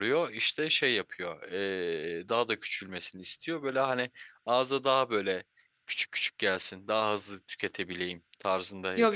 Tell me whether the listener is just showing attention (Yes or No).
No